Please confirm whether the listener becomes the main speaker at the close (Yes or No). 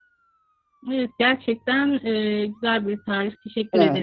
Yes